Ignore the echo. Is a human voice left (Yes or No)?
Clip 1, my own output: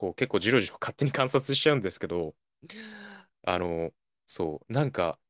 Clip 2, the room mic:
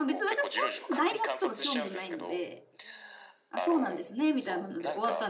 Yes